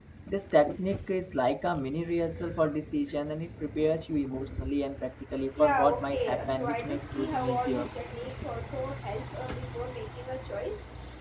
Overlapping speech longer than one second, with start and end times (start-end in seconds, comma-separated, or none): 5.6-7.9